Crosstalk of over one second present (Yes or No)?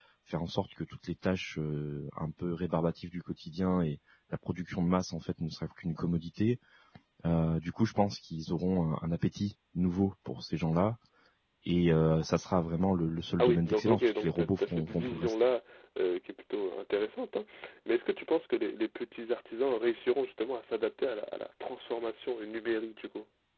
Yes